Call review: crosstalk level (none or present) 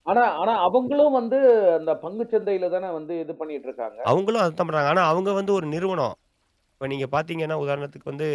none